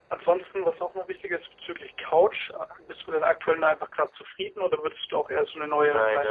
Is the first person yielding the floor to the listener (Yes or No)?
Yes